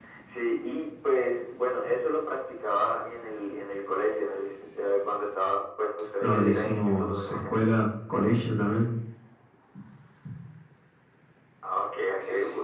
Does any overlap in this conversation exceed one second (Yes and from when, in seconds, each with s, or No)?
Yes, from 6.2 s